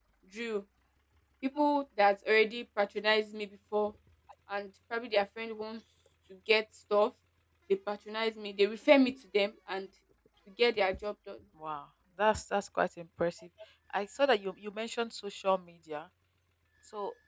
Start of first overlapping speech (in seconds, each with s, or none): none